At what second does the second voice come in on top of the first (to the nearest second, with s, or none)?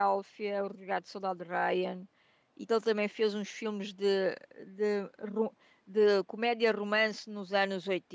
none